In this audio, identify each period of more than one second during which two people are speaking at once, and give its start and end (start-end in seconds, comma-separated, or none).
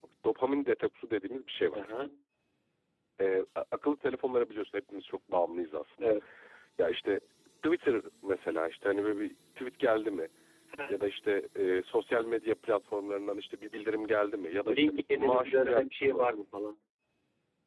14.7-16.3